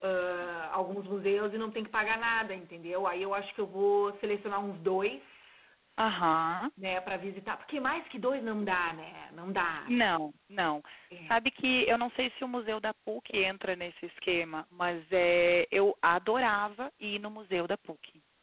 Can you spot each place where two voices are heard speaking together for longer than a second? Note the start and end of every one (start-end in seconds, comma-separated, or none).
none